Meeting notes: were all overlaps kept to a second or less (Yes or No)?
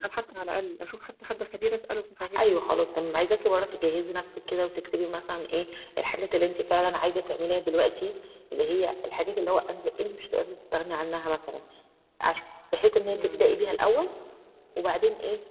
Yes